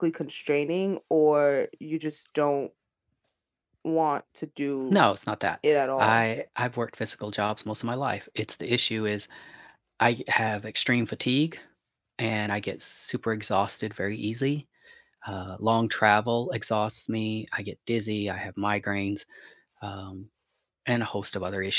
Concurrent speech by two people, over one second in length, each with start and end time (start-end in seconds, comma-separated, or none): none